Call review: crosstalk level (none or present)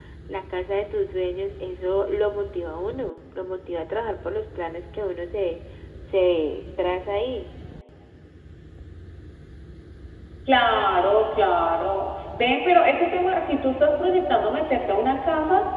none